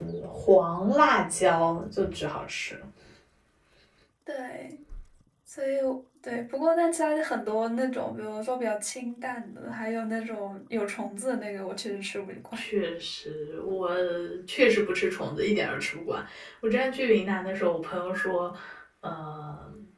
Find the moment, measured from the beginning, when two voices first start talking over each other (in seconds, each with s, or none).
none